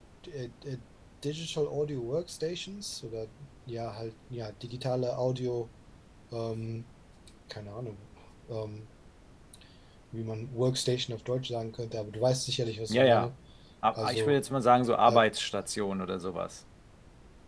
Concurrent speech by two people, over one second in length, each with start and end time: none

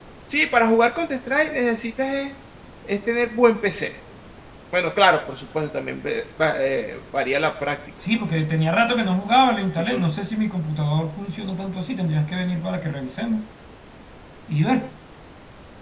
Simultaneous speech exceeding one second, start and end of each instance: none

